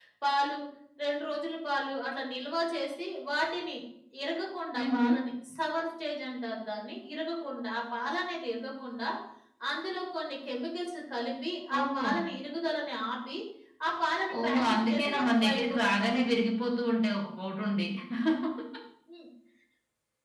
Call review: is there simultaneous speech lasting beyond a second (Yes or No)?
Yes